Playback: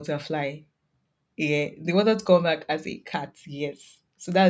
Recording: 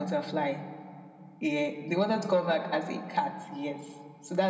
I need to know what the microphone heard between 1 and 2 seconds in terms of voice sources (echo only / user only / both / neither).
echo only